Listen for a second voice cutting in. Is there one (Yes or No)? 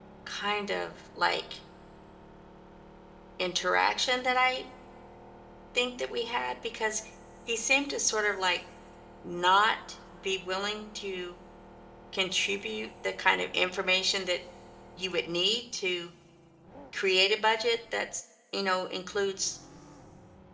No